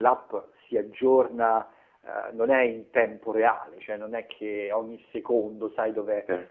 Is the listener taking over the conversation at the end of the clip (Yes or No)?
No